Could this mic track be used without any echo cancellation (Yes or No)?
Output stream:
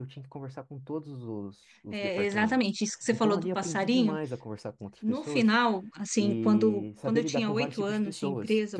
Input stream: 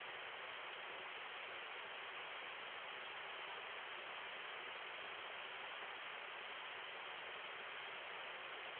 Yes